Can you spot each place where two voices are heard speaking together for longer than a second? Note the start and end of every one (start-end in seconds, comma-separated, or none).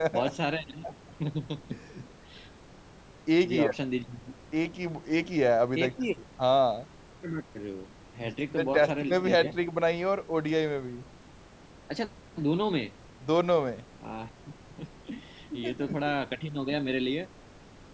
8.2-9.5